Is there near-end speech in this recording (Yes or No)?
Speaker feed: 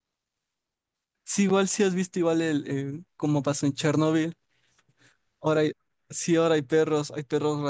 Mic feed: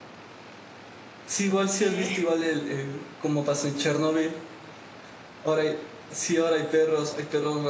Yes